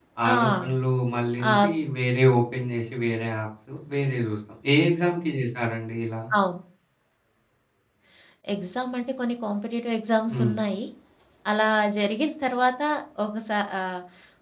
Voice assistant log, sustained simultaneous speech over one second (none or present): none